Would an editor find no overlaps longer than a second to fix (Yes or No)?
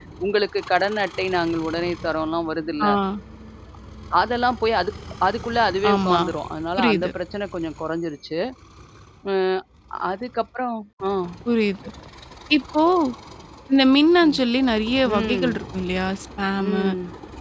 Yes